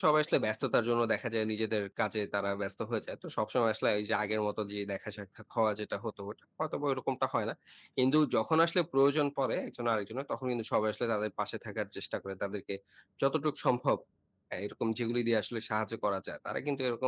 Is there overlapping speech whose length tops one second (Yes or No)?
No